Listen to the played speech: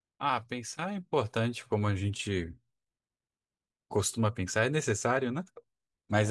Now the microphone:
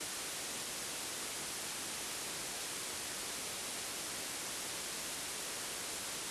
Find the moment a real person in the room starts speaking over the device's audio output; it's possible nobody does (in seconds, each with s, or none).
none